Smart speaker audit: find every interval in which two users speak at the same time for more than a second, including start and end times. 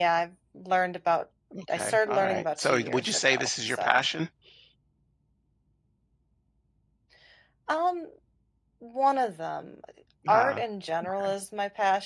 1.8-4.0

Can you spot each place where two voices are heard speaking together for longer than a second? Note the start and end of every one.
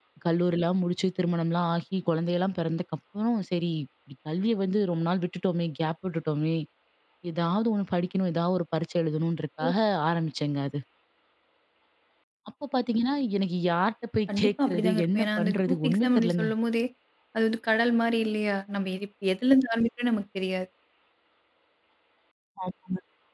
14.4-16.5

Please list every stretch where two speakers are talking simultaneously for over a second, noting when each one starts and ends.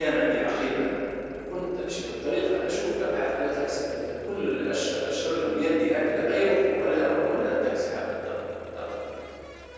none

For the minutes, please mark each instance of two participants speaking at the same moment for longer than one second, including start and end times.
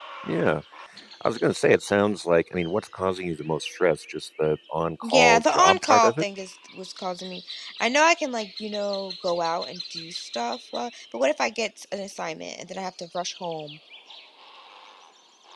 5.0-6.2

